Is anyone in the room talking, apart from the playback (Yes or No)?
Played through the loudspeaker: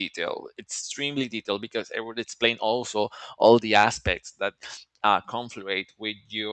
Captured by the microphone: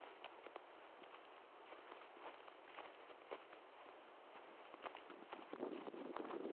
No